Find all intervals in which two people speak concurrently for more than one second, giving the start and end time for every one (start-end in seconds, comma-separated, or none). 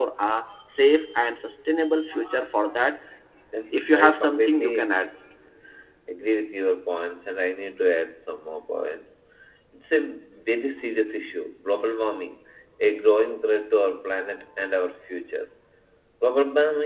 3.7-4.9